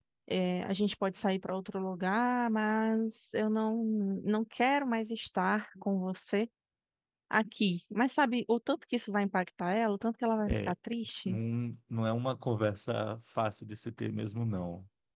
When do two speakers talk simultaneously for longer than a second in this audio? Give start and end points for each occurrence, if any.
none

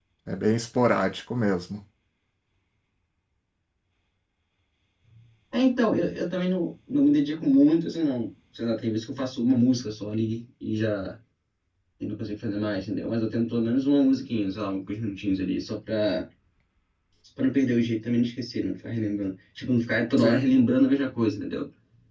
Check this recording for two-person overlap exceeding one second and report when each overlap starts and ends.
none

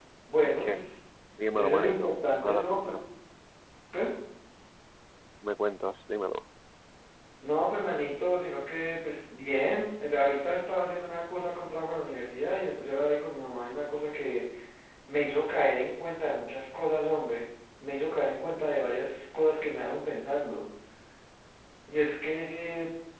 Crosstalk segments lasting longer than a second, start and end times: 1.5-3.0

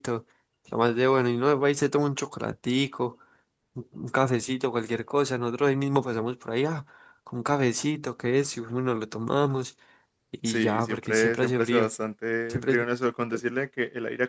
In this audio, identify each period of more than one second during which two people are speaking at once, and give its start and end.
10.4-11.9

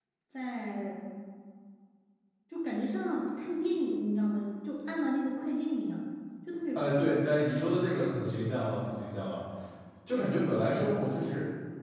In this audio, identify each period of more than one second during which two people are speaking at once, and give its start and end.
none

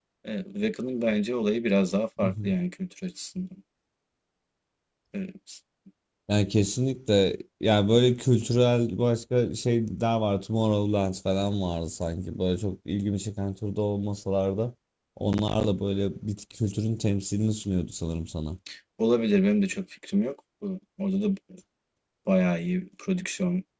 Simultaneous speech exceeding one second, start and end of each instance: none

